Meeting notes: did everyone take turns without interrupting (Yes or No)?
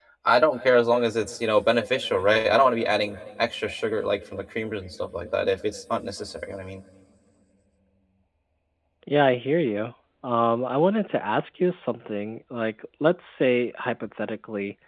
Yes